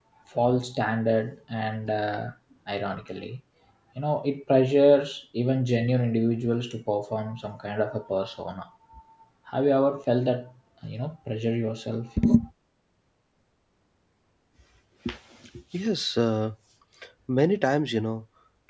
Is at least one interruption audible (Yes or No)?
No